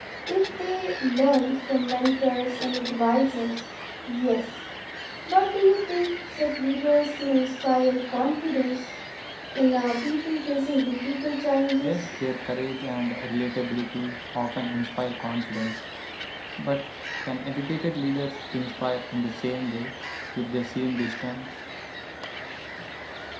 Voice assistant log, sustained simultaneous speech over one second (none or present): none